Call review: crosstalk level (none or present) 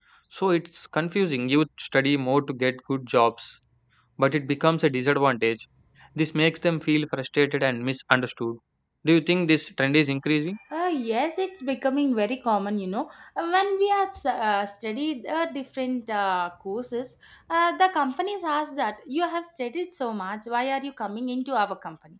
none